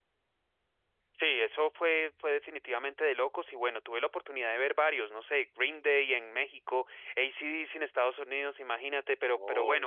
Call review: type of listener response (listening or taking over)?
listening